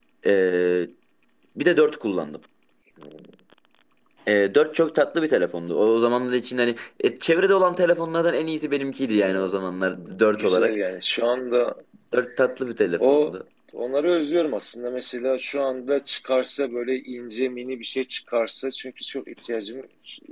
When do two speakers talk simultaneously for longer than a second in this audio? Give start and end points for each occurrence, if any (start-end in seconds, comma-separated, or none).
none